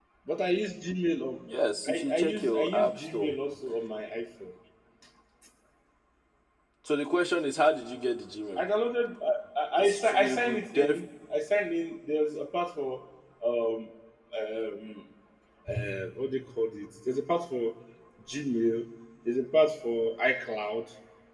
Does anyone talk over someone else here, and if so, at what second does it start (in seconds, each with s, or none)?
1.9 s